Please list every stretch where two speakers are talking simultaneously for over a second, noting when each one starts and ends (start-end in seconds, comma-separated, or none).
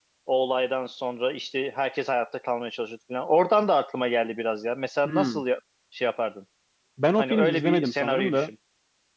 7.2-8.5